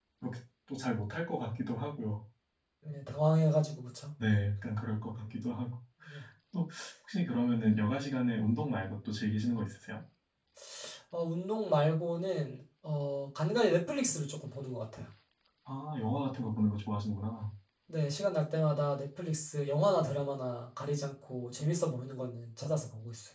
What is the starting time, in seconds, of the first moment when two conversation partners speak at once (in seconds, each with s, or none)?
none